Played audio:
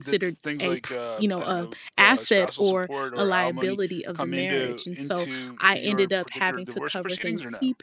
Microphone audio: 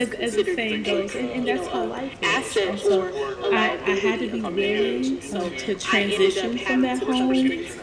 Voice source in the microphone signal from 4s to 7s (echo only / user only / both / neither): both